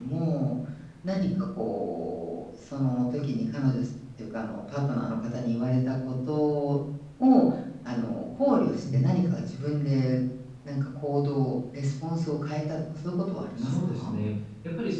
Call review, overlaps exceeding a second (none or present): none